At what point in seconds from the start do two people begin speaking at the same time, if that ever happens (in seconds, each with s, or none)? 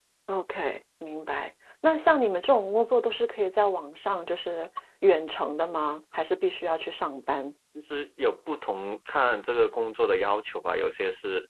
none